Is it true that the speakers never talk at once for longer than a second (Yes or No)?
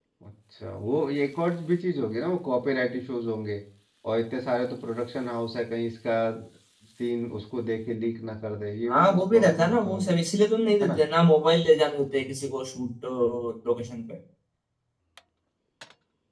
No